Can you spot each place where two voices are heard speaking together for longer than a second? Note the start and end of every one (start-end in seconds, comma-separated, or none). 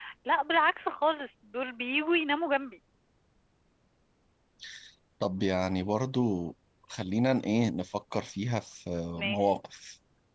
none